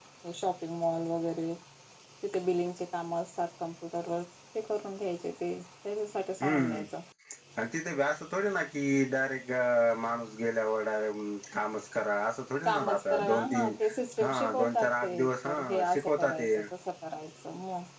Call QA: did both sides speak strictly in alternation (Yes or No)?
No